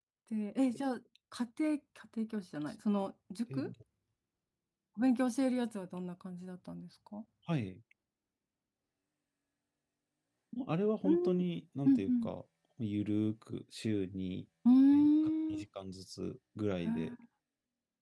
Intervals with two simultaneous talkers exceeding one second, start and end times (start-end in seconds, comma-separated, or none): none